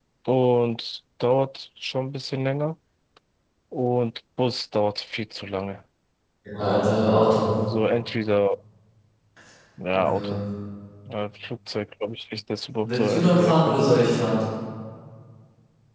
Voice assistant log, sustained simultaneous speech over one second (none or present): present